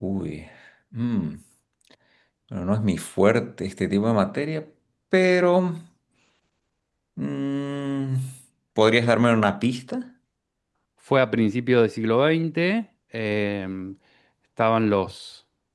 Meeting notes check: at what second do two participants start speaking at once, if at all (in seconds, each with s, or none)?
none